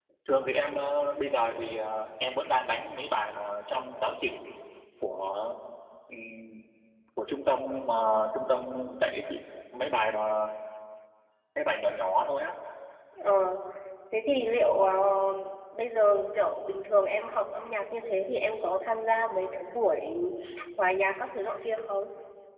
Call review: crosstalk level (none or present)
none